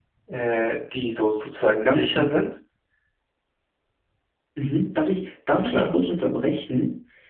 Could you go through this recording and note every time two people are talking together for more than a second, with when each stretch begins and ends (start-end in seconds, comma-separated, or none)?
none